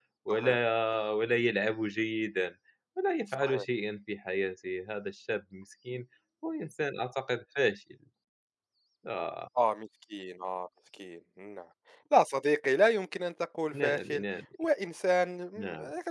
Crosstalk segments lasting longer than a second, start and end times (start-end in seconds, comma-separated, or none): none